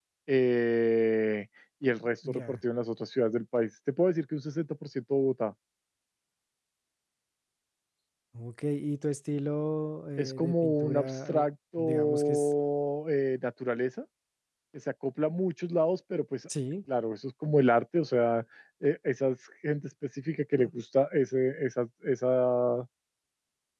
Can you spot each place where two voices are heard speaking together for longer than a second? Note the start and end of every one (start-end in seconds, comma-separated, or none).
10.2-12.5